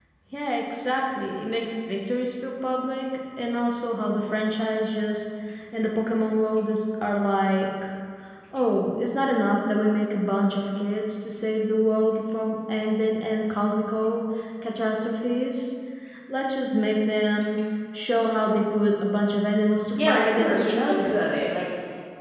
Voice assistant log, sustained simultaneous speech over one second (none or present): present